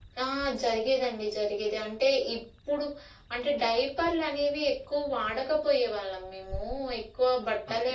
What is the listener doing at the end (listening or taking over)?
listening